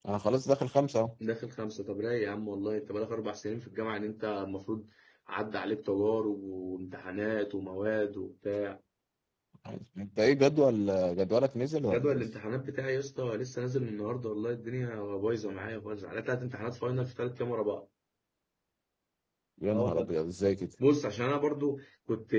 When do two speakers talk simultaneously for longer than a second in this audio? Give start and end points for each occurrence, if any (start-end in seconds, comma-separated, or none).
none